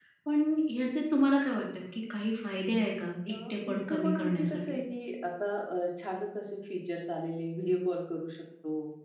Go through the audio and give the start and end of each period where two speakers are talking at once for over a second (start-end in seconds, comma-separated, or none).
3.3-4.8